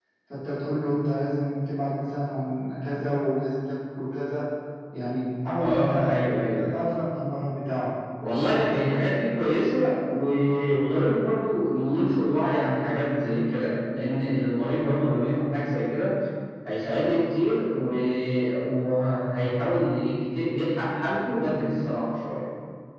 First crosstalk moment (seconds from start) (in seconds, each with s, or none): 5.6 s